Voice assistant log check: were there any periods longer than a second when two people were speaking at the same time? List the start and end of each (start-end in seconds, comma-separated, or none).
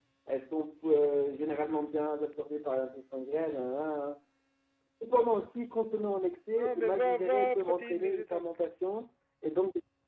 6.5-8.4